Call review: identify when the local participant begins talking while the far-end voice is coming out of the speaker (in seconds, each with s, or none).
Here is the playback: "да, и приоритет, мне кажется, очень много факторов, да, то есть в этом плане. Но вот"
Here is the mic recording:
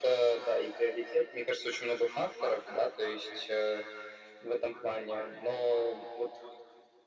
none